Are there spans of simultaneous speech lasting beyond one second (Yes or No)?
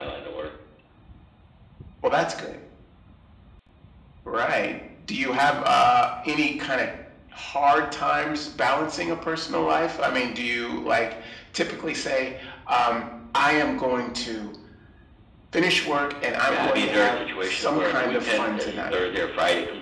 Yes